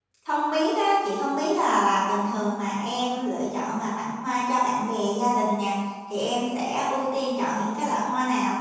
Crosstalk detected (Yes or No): No